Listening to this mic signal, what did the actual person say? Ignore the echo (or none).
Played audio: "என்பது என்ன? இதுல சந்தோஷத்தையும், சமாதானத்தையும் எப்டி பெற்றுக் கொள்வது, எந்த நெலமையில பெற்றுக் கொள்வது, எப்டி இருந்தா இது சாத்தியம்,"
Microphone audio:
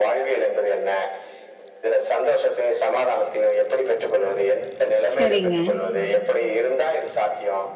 சரிங்க.